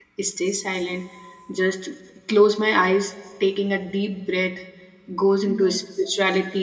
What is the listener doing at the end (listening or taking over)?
listening